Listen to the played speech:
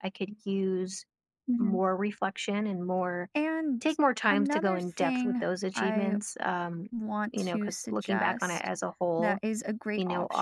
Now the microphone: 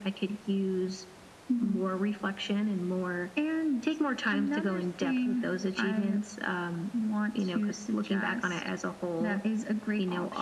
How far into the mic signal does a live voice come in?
none

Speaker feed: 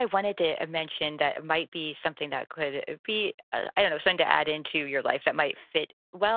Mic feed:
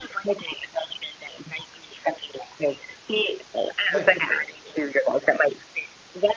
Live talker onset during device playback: 3.9 s

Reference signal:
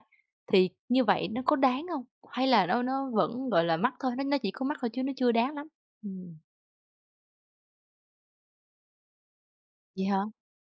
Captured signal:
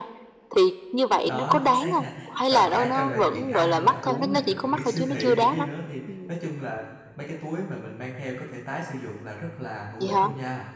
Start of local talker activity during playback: 1.2 s

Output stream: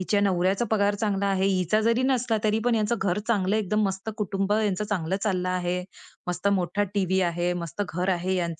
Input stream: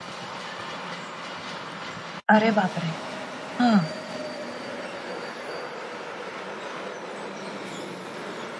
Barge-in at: 2.3 s

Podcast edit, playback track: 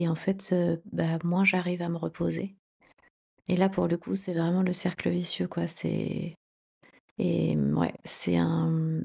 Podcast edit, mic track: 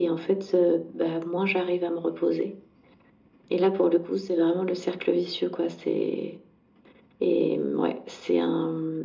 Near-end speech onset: none

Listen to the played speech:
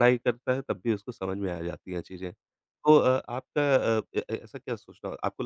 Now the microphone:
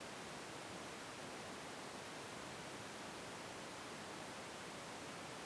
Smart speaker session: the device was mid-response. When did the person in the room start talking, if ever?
none

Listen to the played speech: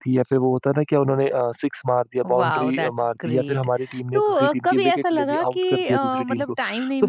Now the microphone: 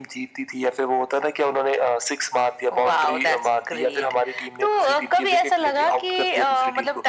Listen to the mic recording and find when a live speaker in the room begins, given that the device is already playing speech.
none

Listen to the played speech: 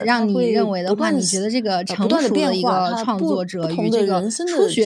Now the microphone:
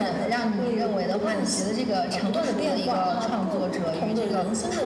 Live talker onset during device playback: none

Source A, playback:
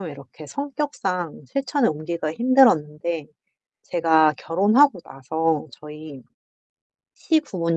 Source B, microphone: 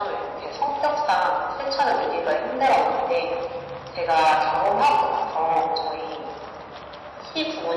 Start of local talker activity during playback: none

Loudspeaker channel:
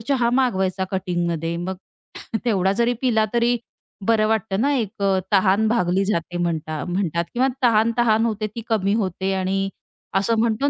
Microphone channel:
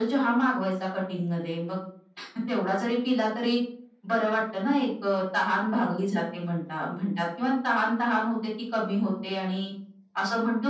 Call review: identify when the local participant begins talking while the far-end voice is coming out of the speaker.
none

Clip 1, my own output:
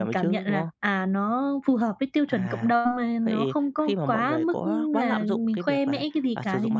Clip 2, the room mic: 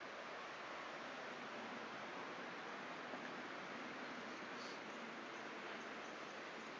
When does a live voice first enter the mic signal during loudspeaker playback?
none

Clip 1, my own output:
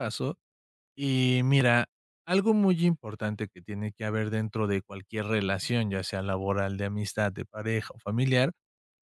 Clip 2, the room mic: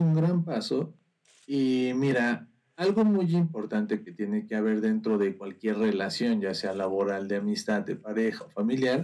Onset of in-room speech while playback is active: none

